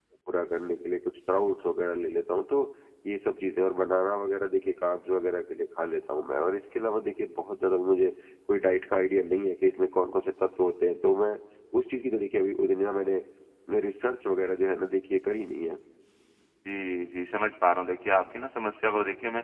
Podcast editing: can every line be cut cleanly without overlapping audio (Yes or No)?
Yes